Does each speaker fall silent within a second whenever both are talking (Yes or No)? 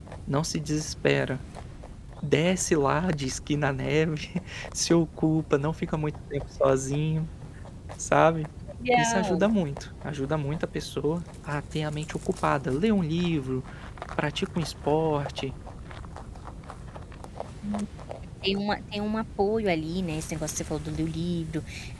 Yes